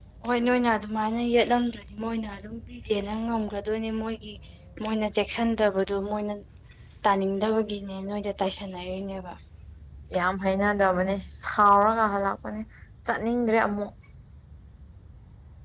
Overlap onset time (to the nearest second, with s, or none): none